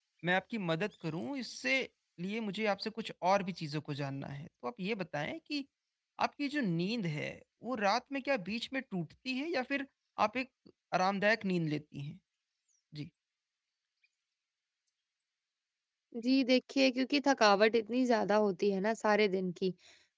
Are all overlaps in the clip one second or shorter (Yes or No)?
Yes